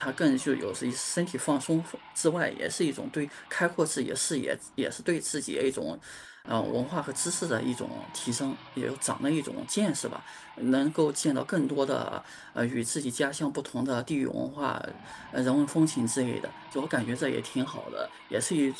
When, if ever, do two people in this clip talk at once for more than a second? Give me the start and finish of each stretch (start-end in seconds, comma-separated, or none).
none